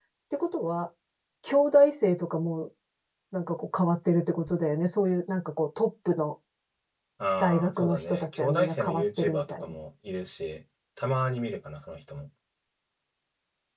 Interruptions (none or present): present